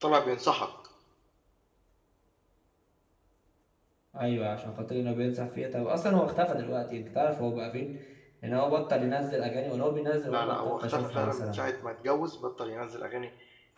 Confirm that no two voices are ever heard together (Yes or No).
No